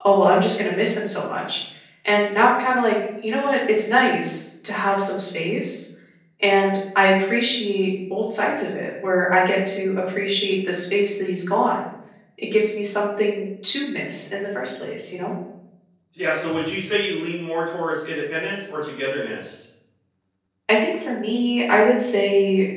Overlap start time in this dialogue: none

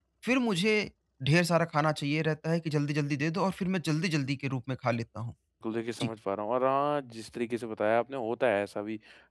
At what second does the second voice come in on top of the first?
none

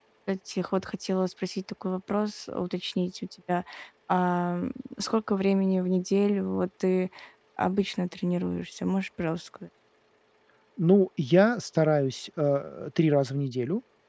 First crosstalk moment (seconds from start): none

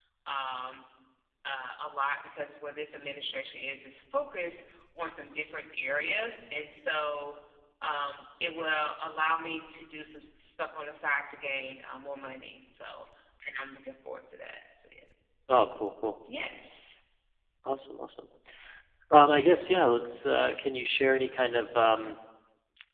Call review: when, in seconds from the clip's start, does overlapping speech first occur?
none

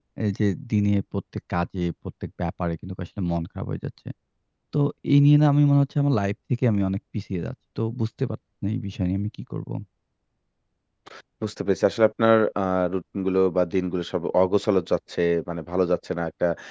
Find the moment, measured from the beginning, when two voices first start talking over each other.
none

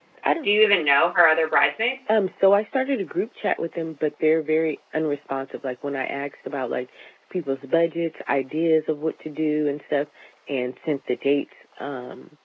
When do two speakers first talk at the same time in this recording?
none

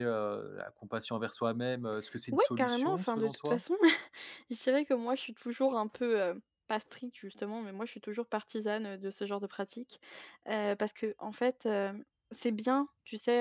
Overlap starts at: 2.3 s

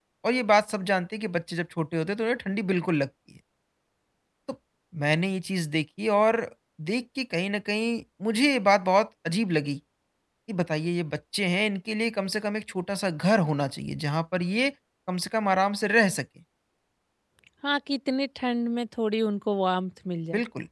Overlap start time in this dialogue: none

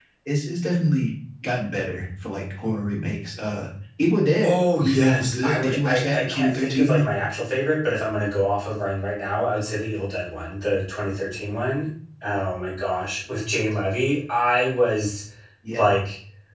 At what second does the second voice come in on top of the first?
4.4 s

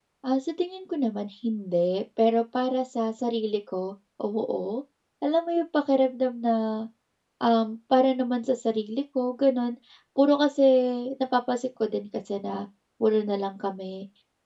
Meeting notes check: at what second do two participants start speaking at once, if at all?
none

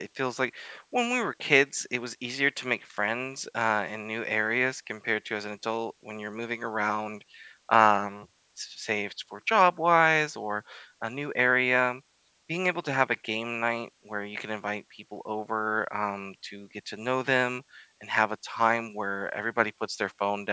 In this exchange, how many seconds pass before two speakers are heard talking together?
none

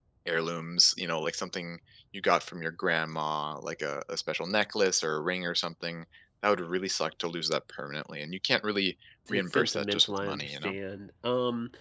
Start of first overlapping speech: 9.3 s

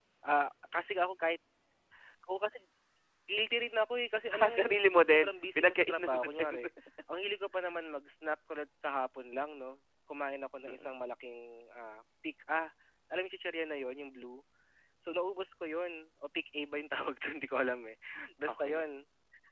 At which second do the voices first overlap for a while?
4.4 s

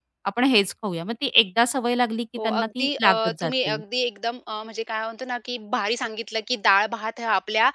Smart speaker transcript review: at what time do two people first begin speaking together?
2.4 s

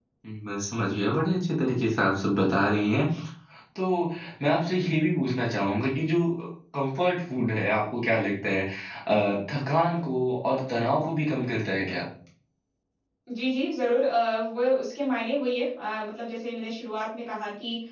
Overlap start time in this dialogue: none

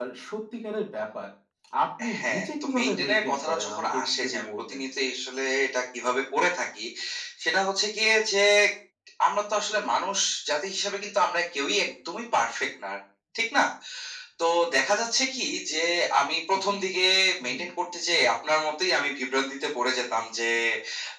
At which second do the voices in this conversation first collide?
2.2 s

